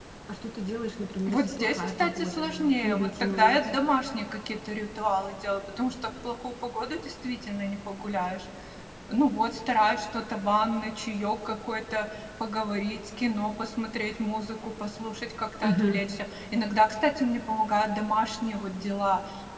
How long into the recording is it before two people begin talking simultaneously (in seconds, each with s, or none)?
1.3 s